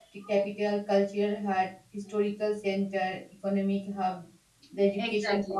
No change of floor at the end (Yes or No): Yes